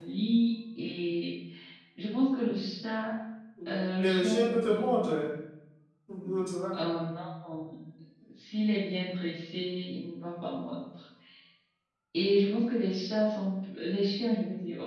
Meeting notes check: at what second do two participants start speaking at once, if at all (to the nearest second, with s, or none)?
4 s